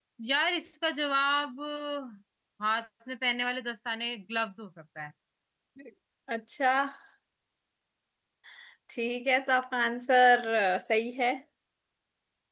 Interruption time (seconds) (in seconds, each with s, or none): none